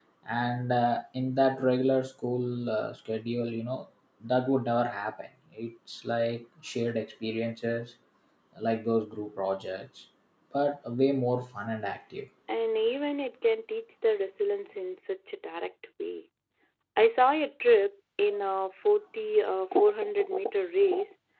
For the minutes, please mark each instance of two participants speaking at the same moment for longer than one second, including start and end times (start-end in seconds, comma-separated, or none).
none